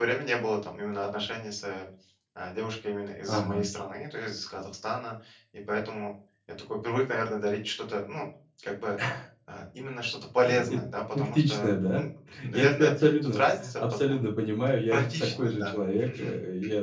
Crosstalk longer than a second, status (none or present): present